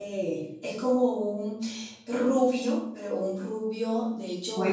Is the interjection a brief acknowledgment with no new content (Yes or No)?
No